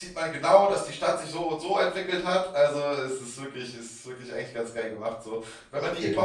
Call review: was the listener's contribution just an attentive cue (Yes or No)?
Yes